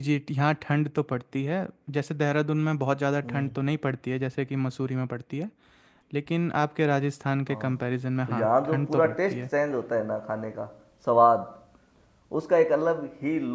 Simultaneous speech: Yes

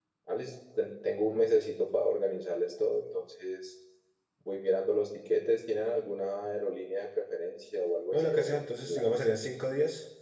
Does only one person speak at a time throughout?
No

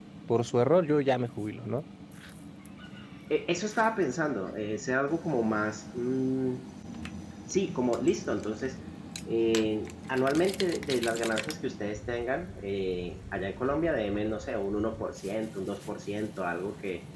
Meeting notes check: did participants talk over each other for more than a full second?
No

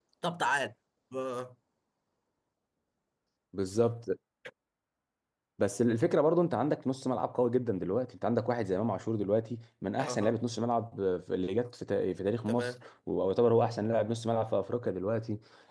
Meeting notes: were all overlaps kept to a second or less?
Yes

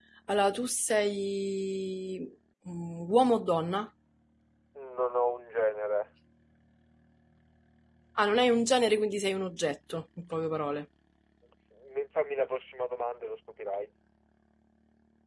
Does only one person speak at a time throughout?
Yes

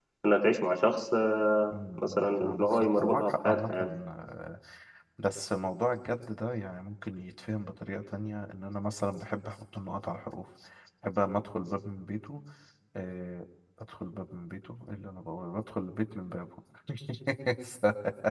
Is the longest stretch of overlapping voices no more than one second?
No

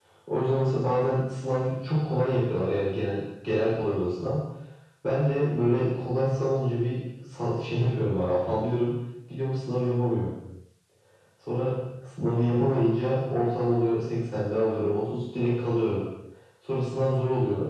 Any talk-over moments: No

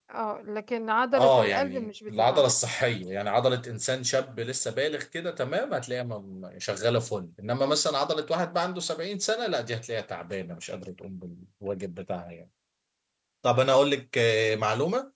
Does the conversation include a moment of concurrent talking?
Yes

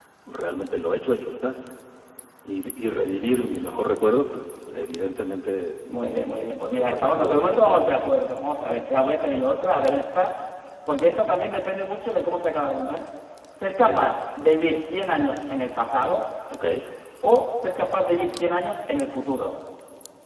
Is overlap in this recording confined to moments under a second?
No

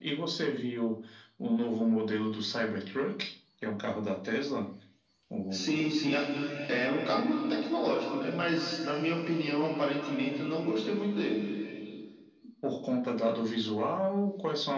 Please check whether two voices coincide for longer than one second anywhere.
No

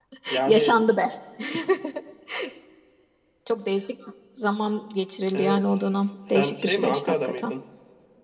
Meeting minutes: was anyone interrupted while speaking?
Yes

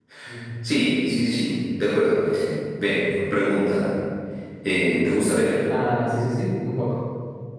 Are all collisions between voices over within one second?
Yes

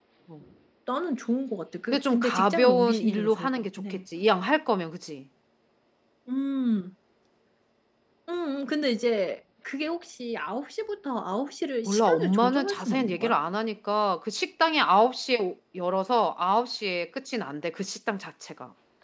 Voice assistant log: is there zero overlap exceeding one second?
No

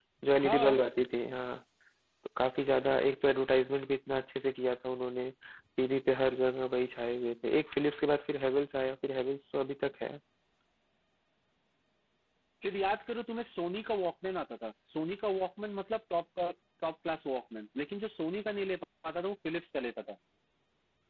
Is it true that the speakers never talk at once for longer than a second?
Yes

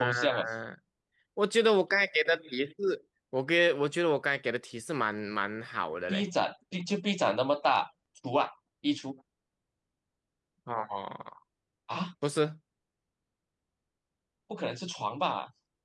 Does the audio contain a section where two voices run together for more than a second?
No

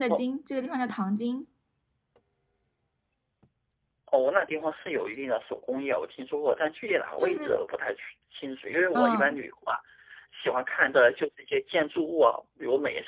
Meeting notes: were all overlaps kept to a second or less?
Yes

